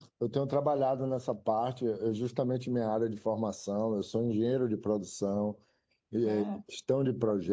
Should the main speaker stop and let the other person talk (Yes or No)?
No